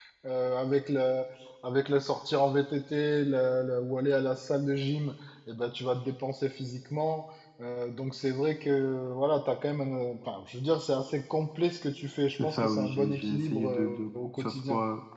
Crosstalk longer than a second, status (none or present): present